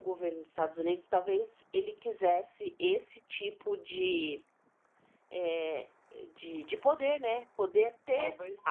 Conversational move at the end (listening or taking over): listening